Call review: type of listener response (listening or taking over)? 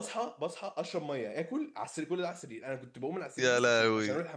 listening